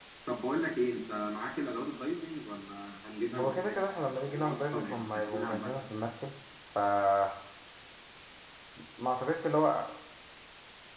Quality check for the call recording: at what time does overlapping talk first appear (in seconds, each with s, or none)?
3.4 s